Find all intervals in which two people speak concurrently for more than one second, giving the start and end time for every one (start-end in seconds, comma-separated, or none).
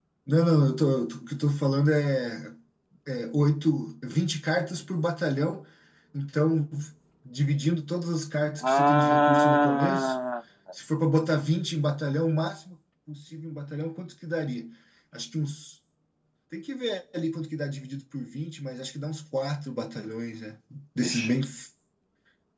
8.6-10.1